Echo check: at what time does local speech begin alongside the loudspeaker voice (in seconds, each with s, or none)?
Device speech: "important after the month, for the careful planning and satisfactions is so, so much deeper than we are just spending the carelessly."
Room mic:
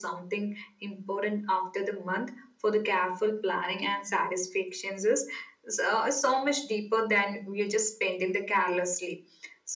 none